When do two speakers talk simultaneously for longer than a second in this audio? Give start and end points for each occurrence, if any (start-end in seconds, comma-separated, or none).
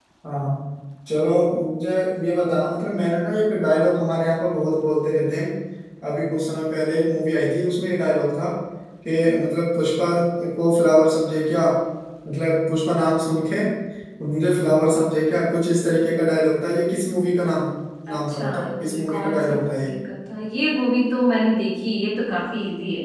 18.1-19.9